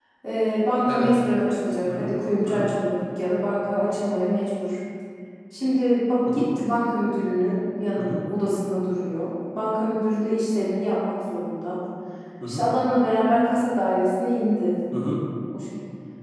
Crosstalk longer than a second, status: none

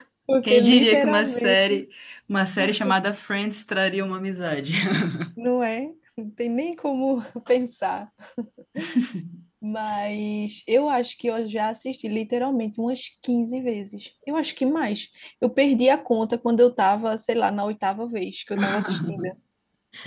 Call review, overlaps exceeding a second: present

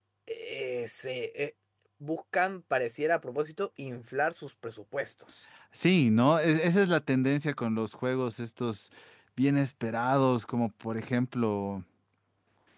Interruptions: none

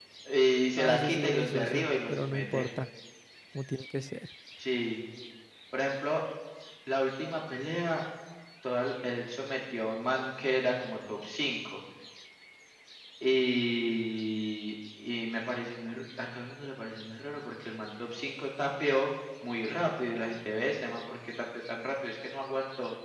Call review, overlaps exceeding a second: present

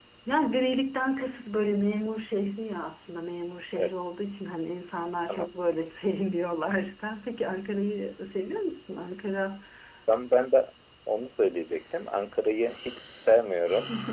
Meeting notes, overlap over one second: none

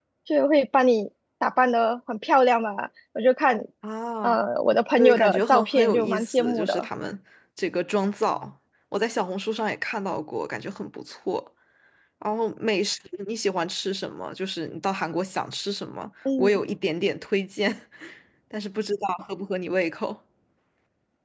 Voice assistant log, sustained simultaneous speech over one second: present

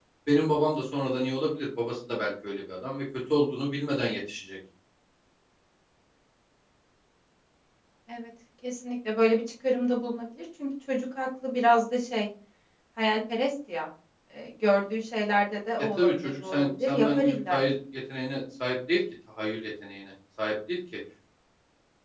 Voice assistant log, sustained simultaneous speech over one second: present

